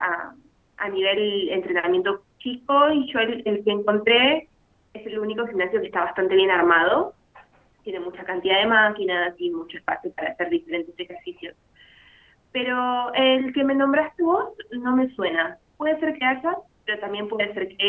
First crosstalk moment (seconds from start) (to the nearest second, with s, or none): none